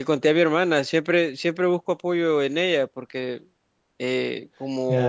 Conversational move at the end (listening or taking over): taking over